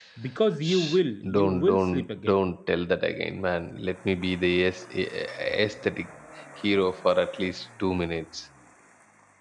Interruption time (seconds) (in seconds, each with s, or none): 0.6 s